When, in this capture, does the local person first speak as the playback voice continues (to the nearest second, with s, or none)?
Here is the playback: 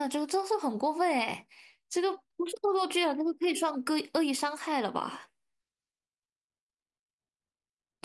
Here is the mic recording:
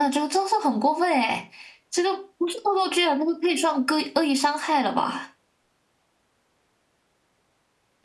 none